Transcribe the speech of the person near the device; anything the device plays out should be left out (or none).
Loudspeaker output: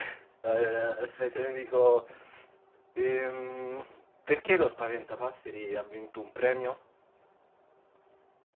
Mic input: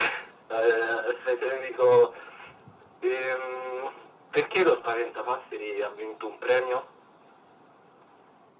none